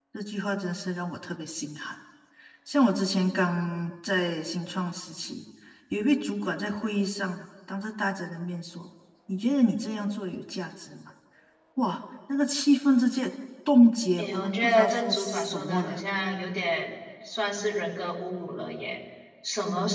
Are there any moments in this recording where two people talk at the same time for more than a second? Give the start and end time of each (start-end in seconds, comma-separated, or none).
14.2-16.0